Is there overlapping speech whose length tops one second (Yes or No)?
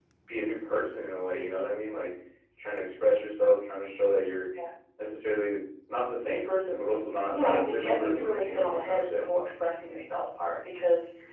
Yes